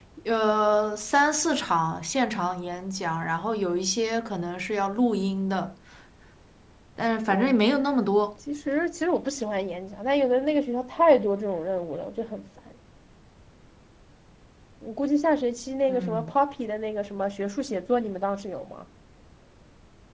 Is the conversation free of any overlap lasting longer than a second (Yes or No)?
Yes